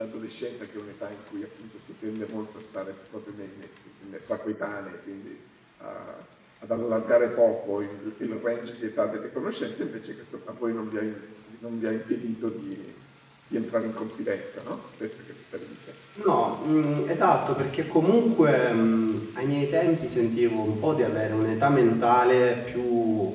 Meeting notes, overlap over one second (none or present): none